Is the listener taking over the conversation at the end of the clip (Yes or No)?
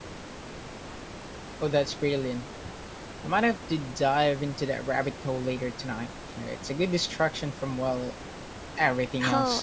Yes